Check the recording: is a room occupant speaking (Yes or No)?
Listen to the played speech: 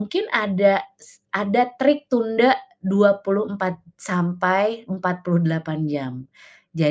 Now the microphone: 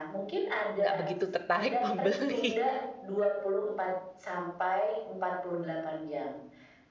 Yes